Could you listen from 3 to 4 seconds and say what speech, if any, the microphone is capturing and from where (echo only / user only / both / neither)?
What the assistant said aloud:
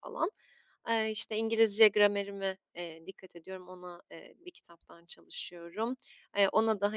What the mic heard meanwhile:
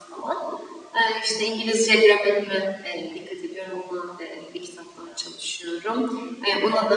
echo only